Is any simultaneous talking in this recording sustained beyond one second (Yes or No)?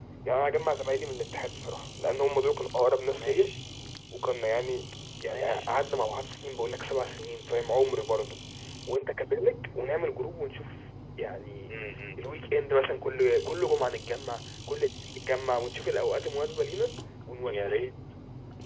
No